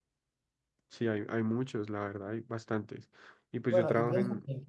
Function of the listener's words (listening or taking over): taking over